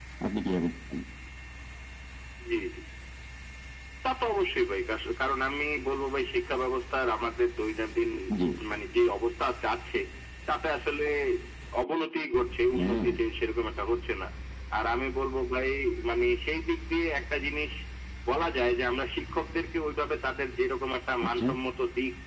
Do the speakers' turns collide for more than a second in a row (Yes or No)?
No